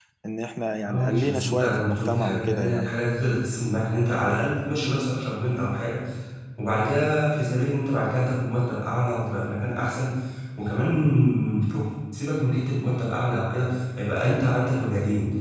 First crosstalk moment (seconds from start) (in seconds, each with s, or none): 0.9 s